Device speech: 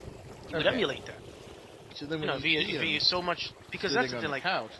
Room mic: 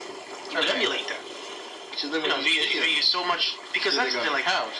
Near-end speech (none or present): none